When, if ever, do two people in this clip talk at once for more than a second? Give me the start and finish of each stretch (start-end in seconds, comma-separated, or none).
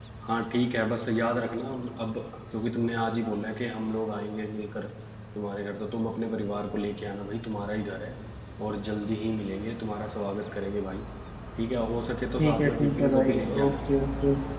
12.4-13.8